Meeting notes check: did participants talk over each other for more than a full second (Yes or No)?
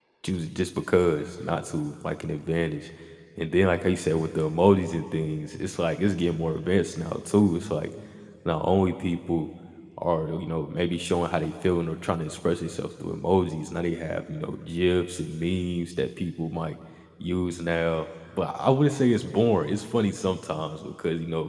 No